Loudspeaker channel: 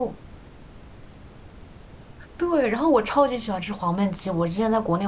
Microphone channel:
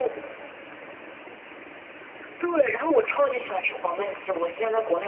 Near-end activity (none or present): none